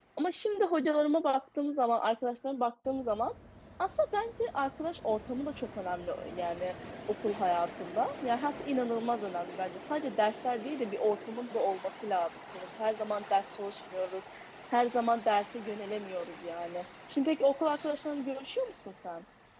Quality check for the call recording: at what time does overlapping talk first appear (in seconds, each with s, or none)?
none